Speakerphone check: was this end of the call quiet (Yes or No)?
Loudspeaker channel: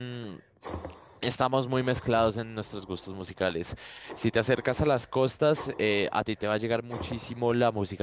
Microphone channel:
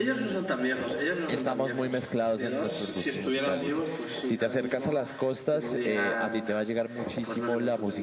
No